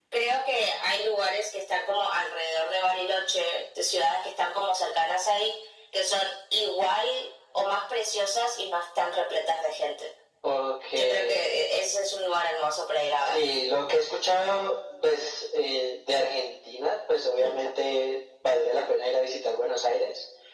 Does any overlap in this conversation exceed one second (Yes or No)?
No